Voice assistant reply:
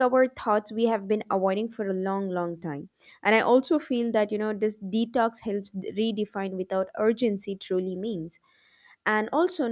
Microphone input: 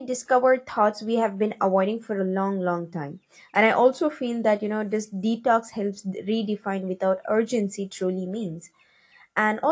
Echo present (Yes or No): Yes